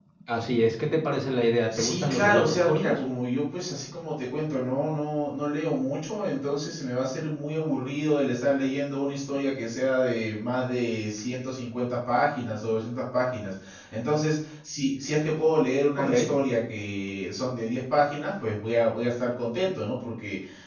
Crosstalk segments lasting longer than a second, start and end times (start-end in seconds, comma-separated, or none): 1.7-3.0